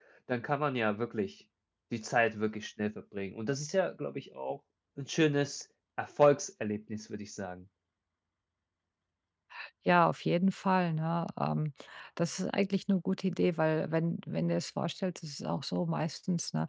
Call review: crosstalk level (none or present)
none